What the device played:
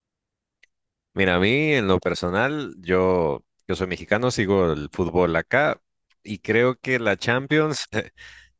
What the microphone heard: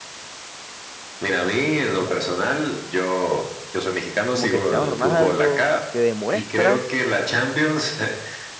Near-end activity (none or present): present